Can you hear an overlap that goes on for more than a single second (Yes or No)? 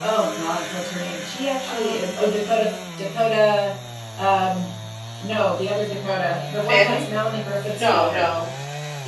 No